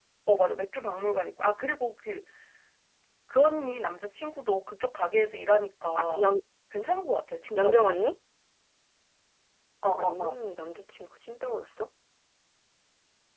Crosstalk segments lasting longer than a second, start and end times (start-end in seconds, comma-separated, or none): none